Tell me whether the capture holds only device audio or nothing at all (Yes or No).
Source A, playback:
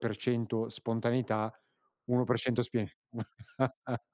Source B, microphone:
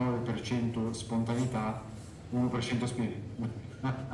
Yes